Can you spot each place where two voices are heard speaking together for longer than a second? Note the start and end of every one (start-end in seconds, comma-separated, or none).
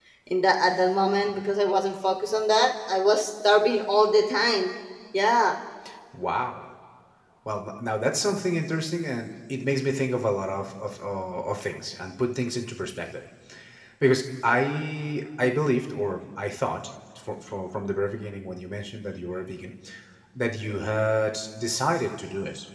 none